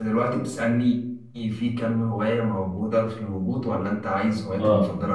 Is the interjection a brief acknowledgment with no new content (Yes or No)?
No